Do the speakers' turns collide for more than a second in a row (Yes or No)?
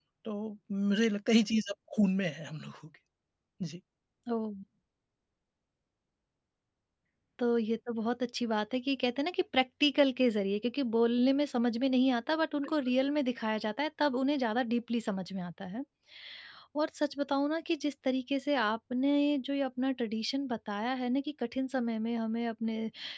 No